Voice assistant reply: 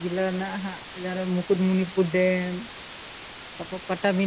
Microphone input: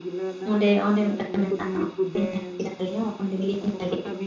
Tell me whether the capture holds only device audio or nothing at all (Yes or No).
No